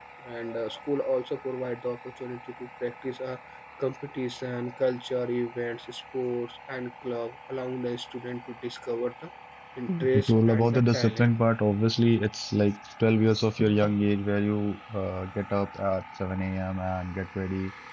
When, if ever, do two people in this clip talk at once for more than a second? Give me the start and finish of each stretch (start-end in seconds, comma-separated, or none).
9.9-11.3